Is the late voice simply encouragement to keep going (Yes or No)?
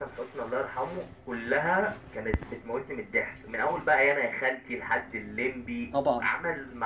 Yes